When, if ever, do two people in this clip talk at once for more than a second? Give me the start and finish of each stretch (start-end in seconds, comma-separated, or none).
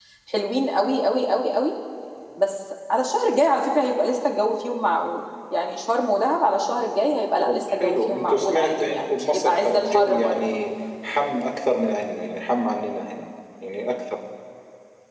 7.4-10.4